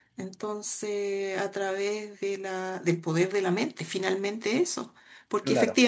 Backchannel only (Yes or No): Yes